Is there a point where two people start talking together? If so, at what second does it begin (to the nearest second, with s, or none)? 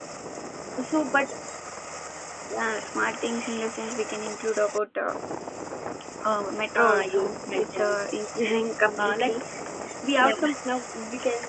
7 s